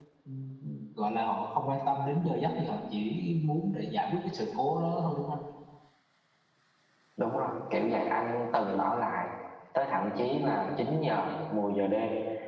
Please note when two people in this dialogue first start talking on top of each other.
none

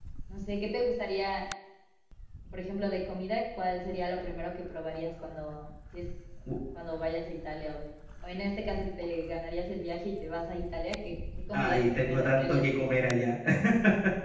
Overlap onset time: 11.5 s

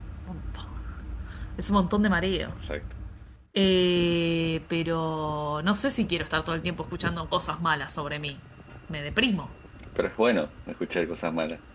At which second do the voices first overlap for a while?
none

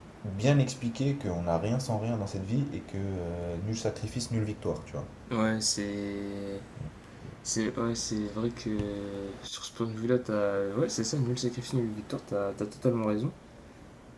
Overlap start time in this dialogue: none

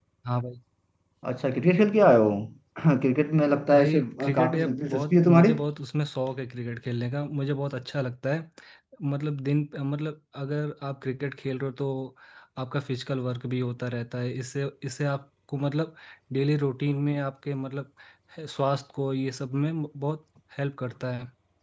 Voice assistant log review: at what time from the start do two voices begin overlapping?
3.7 s

